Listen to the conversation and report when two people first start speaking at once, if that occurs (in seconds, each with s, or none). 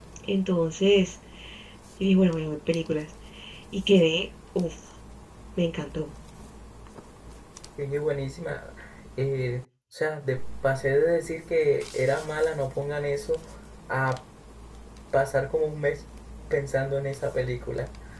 none